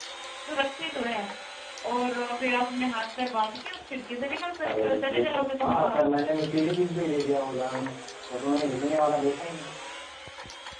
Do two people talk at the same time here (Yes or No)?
Yes